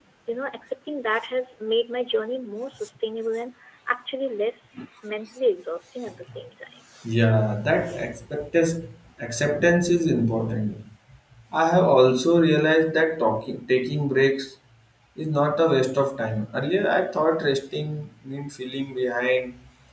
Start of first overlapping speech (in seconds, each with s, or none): none